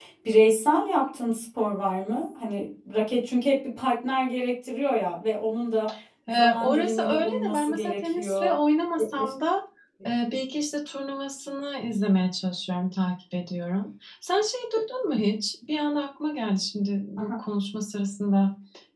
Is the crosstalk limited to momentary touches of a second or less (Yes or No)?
No